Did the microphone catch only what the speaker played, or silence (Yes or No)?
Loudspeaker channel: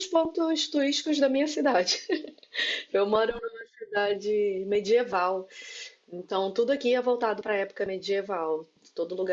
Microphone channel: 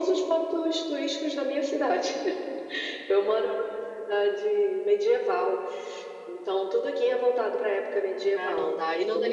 No